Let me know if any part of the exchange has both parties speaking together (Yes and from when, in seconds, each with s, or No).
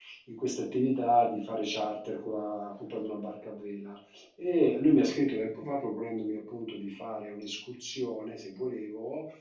No